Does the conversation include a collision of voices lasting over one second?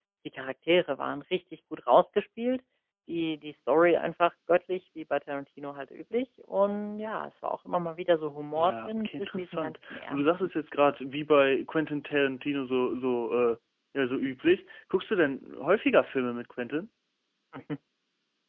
Yes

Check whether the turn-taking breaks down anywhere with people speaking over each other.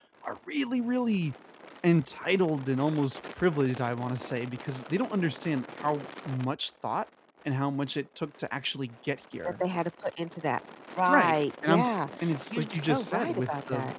Yes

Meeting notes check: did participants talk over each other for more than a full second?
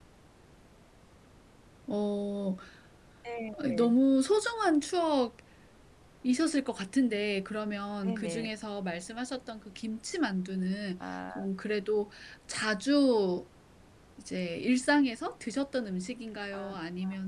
No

